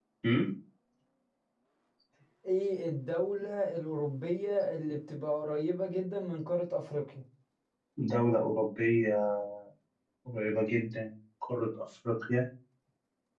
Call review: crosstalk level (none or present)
none